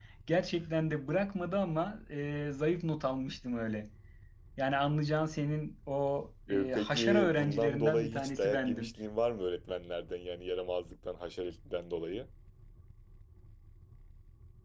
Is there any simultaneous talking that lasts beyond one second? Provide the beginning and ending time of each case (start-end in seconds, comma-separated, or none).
6.5-8.9